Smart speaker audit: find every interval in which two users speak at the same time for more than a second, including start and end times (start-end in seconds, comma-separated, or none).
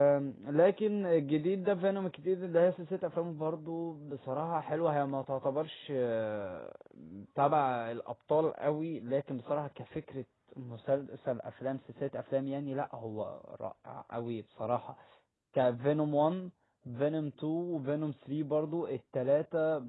none